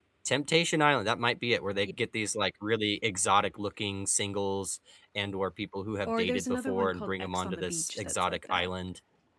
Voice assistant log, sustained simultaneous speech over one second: present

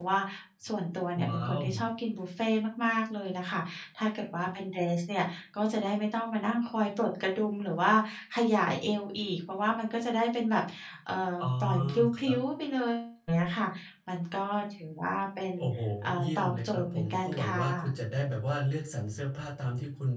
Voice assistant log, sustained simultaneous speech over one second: present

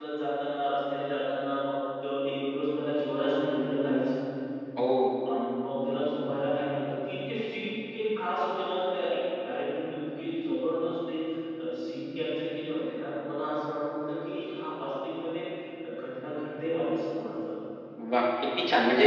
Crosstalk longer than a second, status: none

